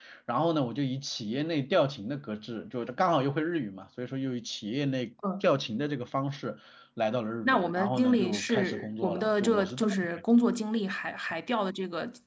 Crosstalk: present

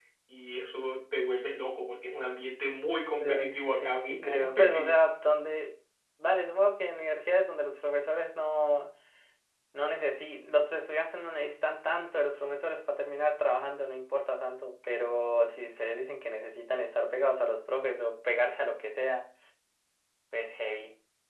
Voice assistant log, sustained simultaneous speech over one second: present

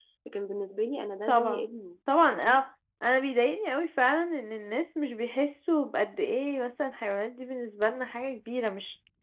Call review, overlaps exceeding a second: none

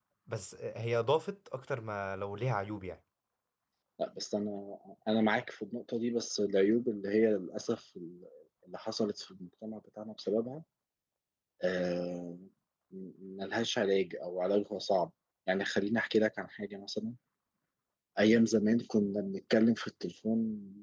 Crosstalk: none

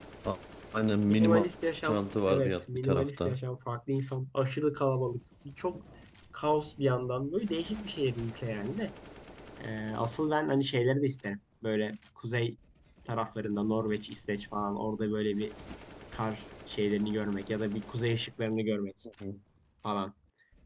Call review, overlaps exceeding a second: present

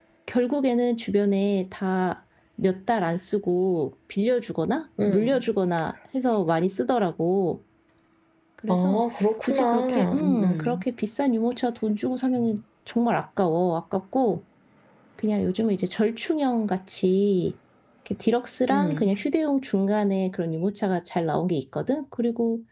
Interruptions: present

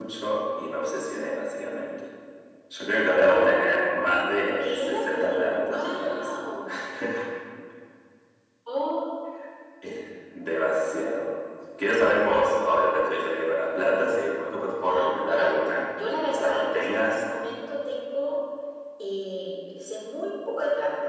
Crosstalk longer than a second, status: present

